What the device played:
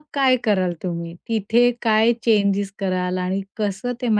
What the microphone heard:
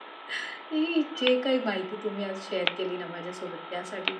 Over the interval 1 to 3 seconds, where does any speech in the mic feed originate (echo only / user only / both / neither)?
user only